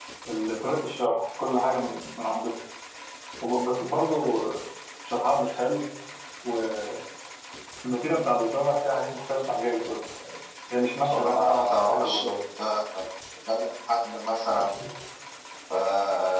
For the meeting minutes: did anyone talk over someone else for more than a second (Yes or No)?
Yes